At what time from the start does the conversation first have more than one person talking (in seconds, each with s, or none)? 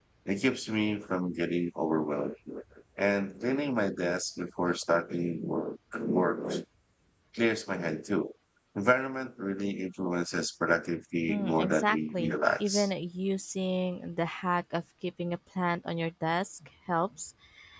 11.3 s